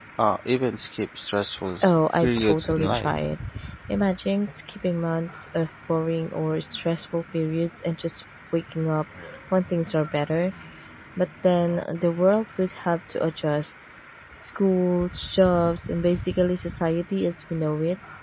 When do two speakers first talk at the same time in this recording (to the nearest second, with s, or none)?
2 s